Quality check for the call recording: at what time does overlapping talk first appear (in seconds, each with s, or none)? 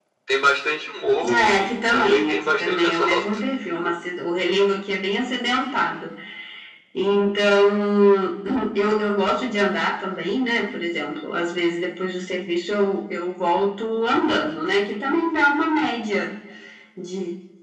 1.2 s